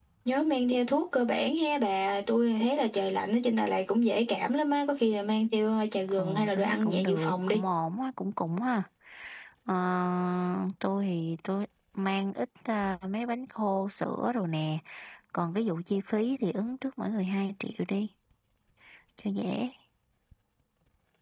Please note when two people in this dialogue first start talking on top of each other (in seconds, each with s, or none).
6.1 s